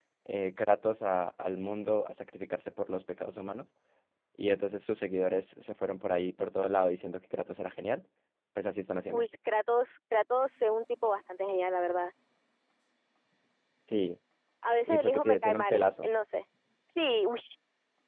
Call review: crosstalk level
present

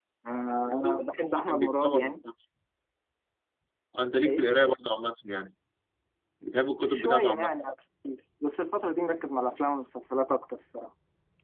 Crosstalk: present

